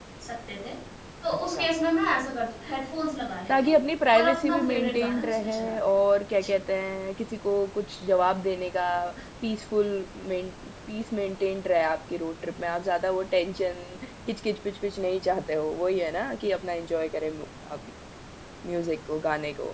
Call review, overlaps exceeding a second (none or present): present